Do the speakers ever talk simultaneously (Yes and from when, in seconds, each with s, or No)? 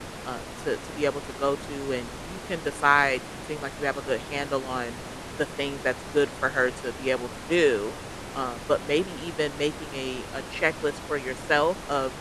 No